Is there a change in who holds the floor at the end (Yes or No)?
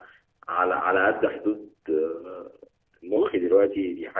No